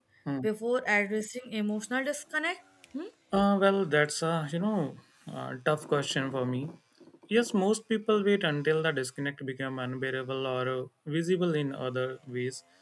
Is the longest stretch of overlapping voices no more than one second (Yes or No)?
Yes